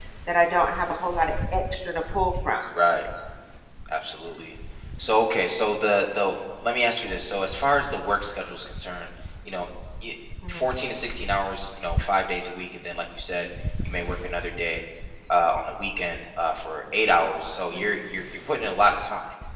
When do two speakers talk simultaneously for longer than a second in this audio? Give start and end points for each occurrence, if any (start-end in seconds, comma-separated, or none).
none